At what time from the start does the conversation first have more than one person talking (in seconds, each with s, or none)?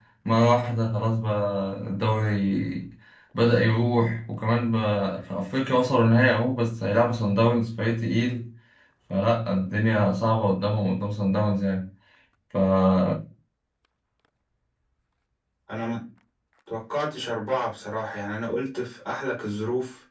none